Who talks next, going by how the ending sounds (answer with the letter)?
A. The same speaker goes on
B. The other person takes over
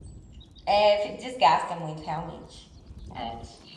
B